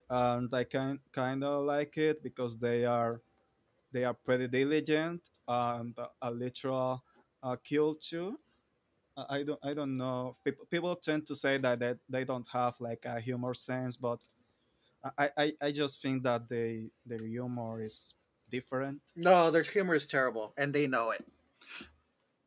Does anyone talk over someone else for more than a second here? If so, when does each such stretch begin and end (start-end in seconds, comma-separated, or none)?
none